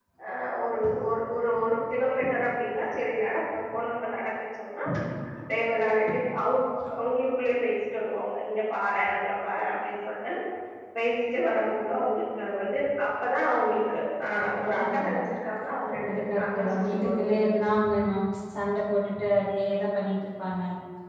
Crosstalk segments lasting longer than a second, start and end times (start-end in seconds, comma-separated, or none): 16.1-17.4